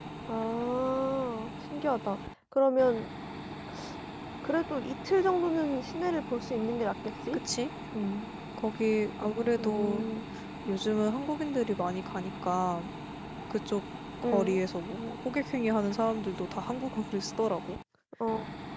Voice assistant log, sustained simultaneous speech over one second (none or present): none